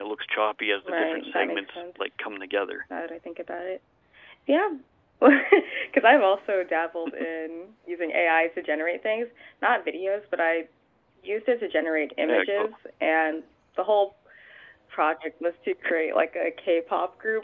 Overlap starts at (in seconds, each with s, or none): 0.8 s